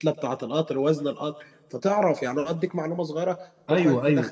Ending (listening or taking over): taking over